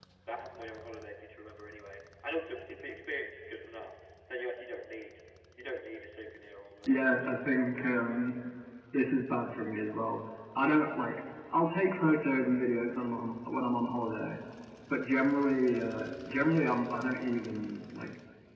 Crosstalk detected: Yes, from 6.9 s

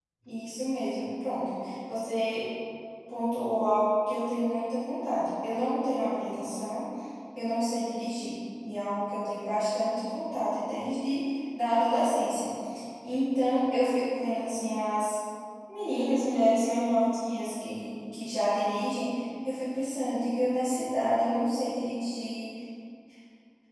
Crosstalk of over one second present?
No

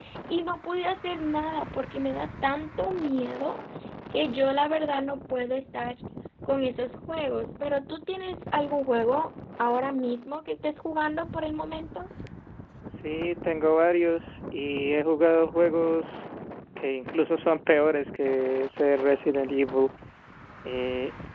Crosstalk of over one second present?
No

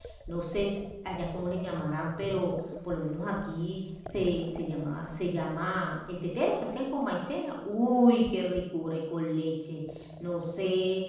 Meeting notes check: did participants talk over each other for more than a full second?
No

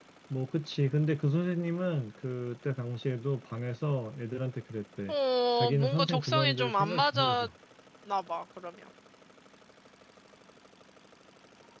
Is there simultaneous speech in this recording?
Yes, from 5.6 s

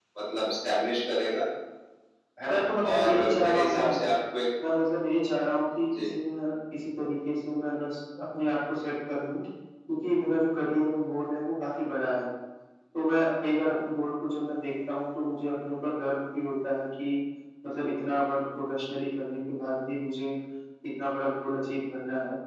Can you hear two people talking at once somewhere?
Yes, from 2.5 s

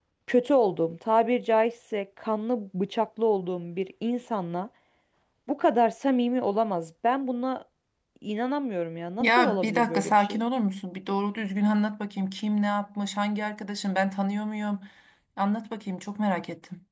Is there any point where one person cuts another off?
Yes, from 9.2 s

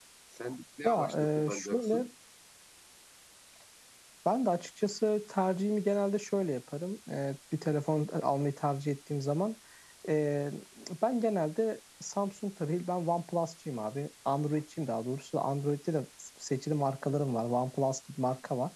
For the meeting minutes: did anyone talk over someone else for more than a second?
Yes, from 0.8 s

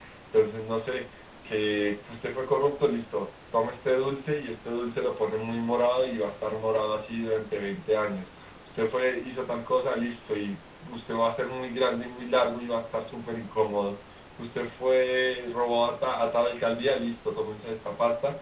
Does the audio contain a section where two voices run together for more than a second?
No

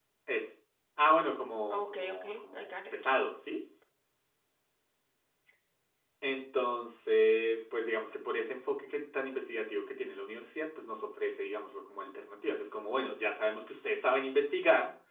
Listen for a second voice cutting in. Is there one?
Yes, from 1.7 s

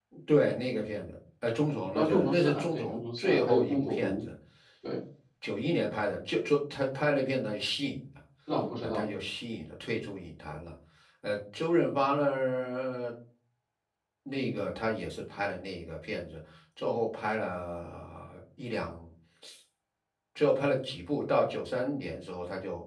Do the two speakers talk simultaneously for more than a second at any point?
Yes, from 1.9 s

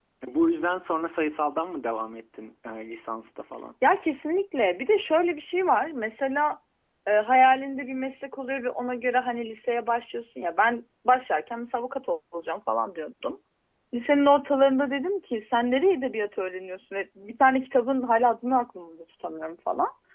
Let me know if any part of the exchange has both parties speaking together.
No

